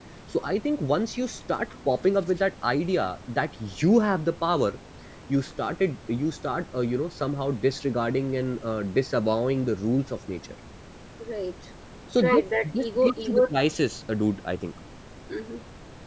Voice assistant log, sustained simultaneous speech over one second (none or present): present